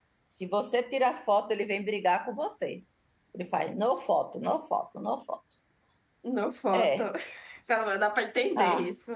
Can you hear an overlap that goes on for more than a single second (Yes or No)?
No